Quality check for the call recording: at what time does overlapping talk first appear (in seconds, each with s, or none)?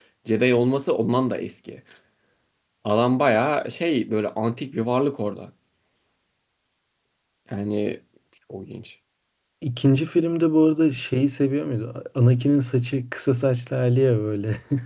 none